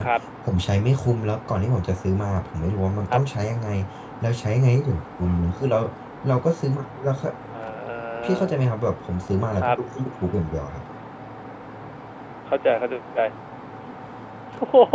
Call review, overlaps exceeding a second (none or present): none